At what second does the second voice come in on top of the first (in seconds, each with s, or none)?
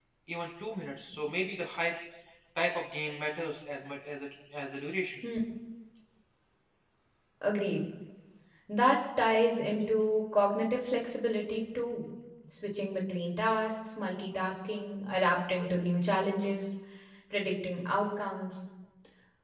none